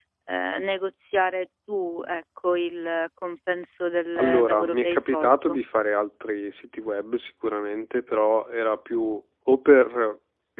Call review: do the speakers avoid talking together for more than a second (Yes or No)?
No